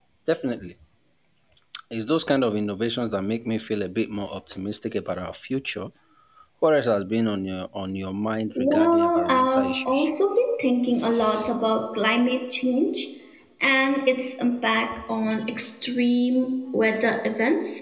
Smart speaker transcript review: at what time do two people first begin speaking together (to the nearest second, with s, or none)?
9 s